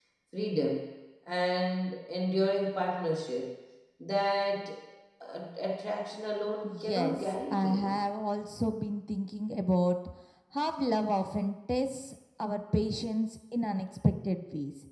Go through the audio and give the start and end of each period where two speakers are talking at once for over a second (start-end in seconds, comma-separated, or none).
6.6-8.0